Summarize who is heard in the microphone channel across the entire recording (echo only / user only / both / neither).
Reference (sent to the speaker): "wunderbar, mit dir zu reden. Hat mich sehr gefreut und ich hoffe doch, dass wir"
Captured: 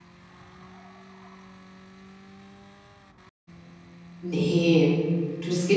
user only